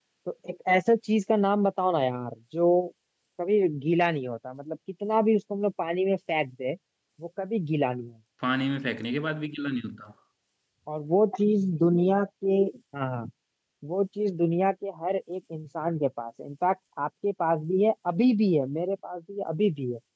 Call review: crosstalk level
none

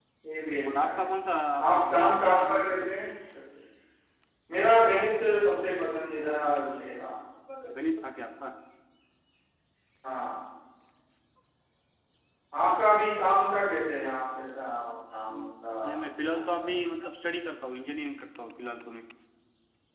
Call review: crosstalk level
present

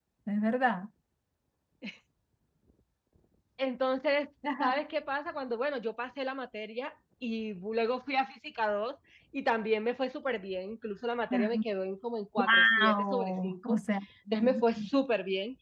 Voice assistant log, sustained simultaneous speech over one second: present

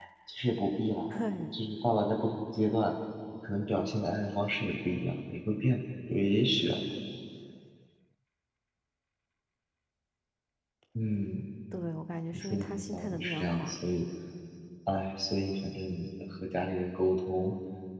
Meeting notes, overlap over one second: present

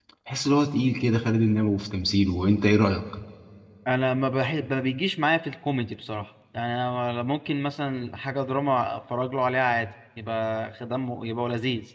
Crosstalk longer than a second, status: none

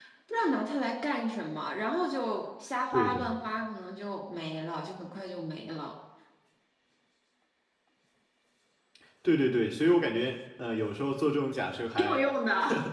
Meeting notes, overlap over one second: none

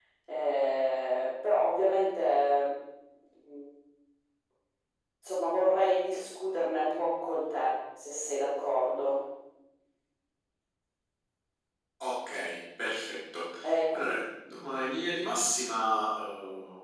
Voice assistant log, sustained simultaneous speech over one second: none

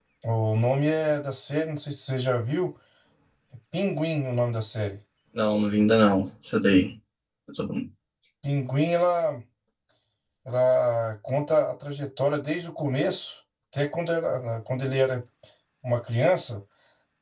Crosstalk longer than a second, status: none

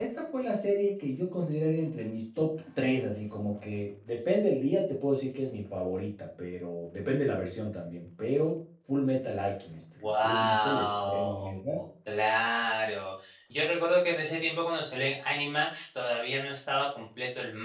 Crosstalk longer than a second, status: present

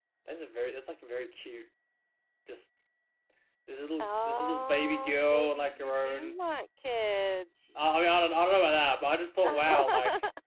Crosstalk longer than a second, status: present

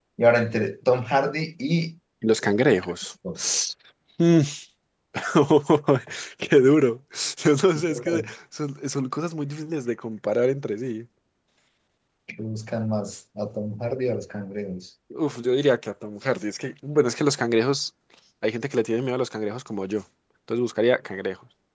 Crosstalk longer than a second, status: none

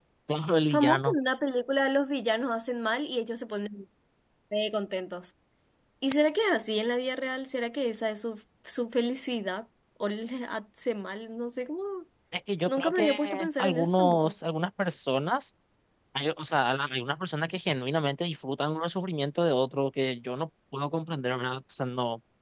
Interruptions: present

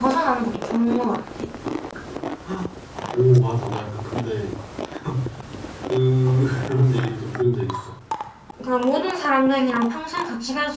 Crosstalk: none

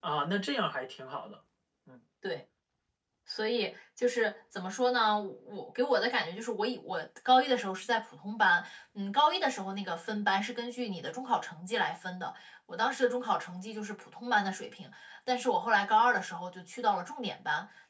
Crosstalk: none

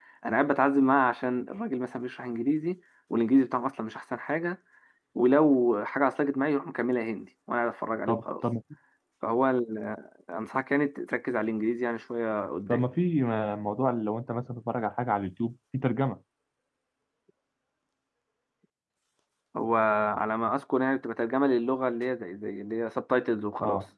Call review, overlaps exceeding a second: none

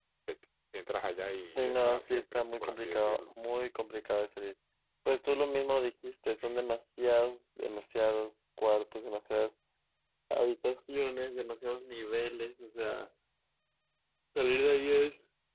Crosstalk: present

